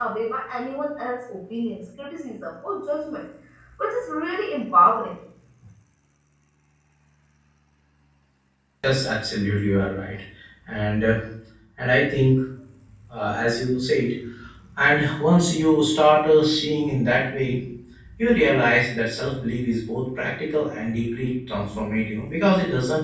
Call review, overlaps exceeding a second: none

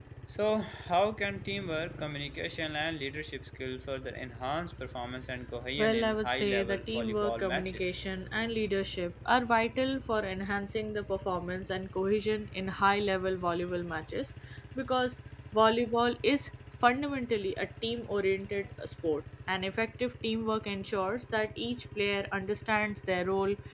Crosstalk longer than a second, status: present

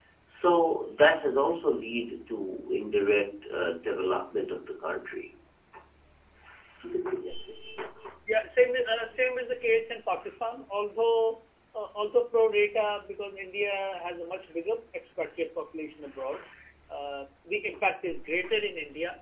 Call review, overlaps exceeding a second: none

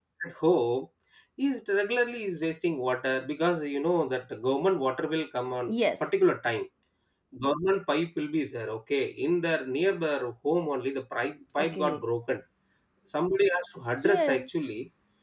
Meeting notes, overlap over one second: none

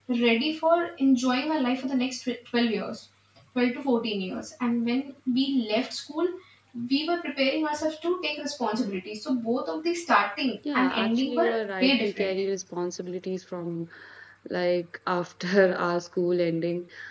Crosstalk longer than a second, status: present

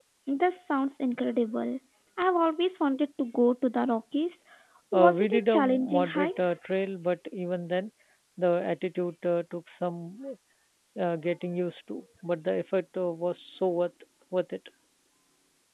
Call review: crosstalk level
present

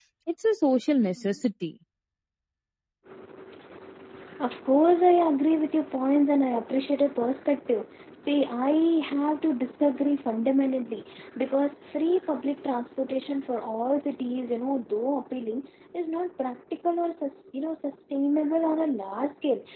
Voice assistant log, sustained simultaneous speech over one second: none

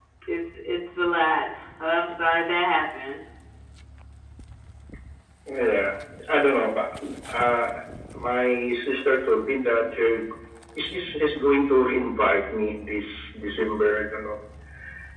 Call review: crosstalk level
none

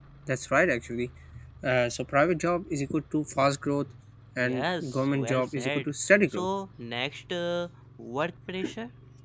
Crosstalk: present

